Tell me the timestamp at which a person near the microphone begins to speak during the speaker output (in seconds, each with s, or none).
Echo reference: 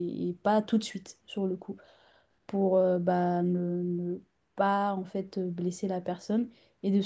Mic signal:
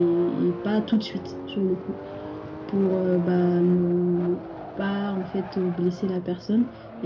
none